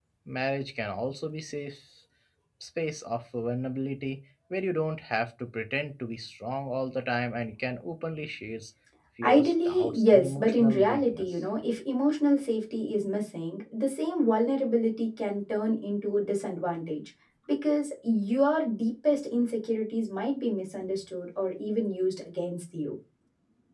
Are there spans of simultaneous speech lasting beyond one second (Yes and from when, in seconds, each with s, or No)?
Yes, from 9.2 s